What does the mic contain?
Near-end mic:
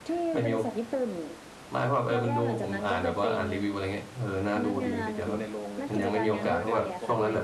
both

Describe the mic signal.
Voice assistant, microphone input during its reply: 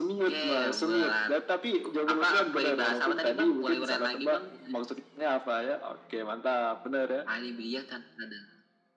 echo only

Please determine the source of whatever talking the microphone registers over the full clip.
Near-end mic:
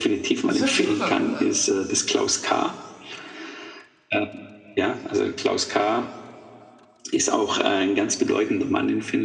both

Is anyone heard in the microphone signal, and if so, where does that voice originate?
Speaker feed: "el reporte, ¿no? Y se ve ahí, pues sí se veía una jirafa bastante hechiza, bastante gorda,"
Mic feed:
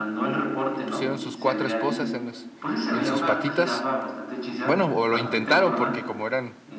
both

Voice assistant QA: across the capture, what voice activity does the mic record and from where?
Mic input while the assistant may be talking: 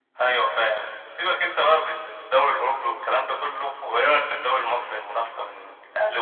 echo only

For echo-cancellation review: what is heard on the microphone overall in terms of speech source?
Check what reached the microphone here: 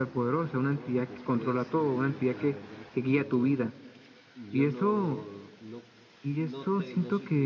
both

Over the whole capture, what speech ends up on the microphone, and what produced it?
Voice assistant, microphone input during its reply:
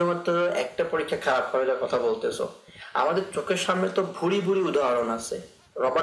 echo only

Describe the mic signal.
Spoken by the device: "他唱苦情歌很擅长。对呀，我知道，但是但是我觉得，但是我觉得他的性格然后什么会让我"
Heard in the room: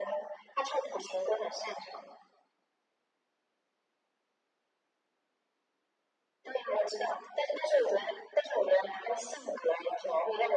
echo only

